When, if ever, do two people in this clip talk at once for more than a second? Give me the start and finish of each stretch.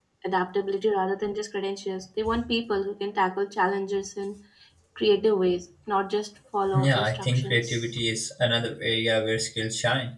6.7-8.0

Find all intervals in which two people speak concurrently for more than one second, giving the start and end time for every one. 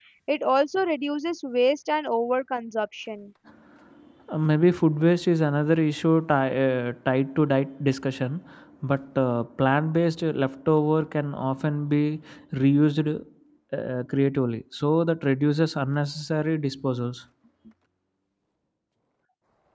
none

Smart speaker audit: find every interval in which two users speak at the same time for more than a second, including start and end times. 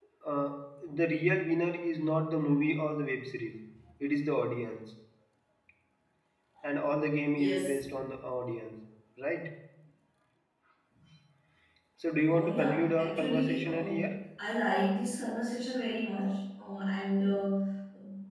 12.3-13.9

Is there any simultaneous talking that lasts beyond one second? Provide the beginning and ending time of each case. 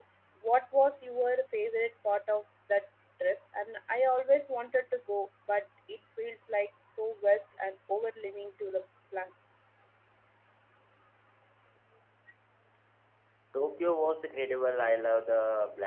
none

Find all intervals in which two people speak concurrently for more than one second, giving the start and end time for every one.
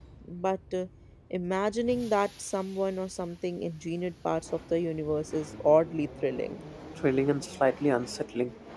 none

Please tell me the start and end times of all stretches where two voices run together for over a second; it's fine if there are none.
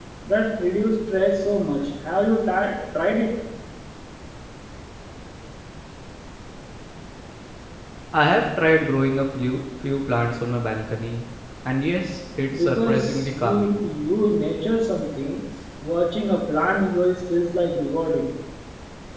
12.6-13.8

